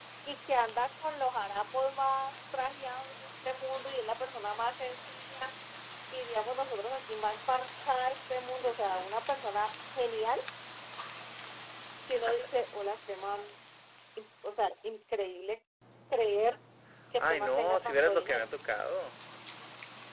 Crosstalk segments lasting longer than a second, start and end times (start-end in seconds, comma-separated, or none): 17.2-18.5